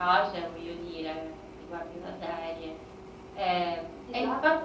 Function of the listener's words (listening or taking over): listening